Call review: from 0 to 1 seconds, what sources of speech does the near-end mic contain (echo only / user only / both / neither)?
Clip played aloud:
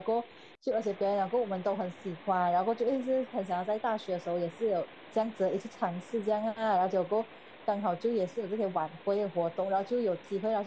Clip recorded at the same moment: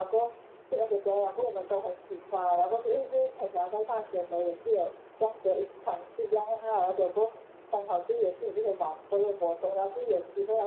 echo only